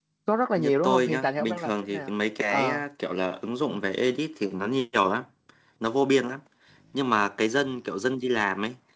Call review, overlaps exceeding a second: present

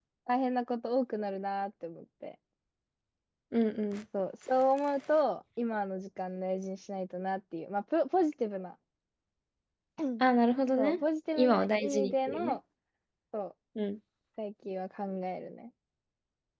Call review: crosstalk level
present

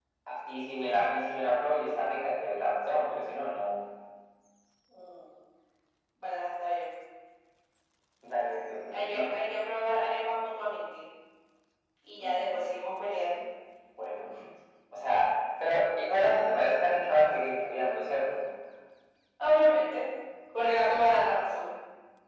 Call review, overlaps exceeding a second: none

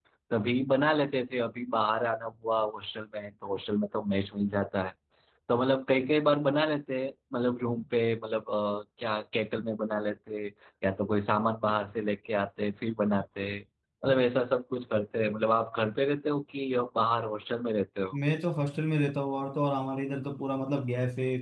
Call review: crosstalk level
none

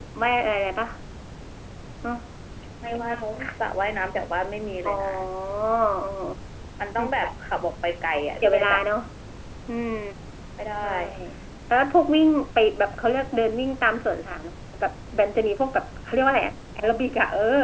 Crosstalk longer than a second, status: none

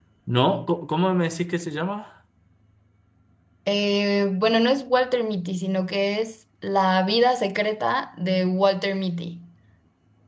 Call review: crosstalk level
none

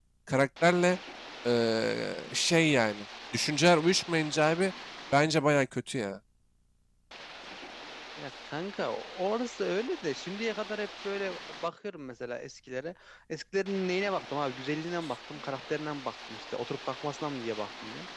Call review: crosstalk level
none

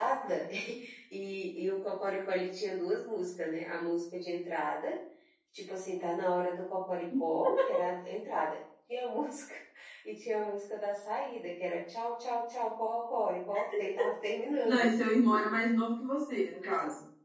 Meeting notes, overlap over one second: none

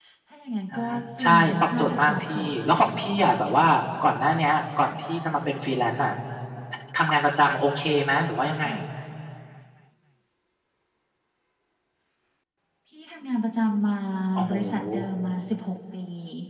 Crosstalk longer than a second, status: present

